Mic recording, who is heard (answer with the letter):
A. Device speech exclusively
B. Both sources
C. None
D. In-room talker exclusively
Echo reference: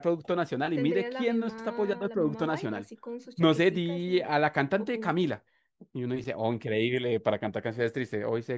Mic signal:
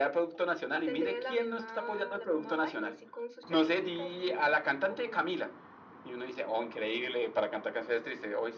A